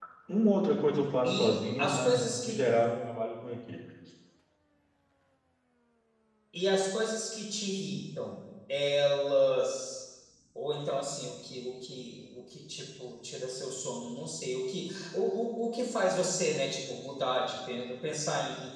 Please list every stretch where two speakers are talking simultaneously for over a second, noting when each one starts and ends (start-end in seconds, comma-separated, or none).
1.2-2.6